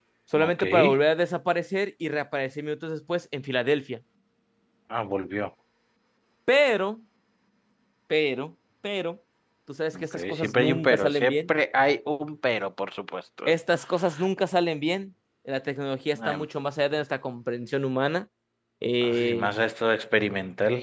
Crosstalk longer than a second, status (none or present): present